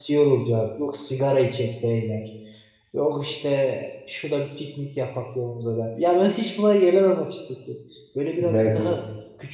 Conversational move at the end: listening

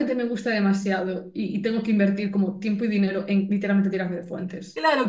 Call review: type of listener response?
taking over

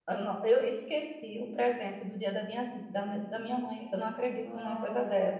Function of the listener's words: taking over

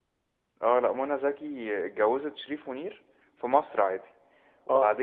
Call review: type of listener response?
listening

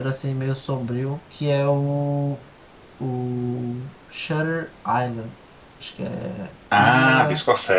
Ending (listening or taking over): taking over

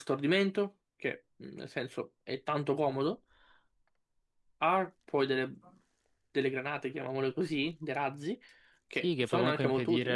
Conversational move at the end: taking over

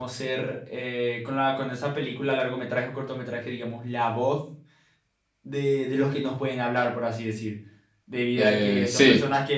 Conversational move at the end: listening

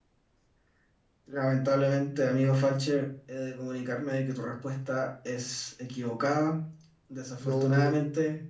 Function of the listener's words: listening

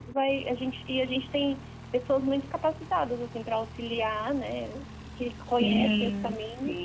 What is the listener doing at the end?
taking over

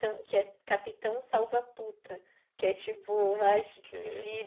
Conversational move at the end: listening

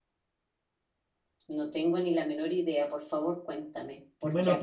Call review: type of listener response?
taking over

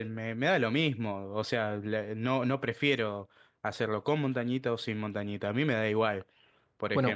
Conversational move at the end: taking over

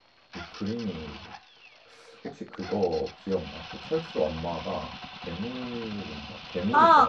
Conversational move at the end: taking over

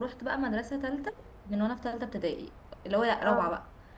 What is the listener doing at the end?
listening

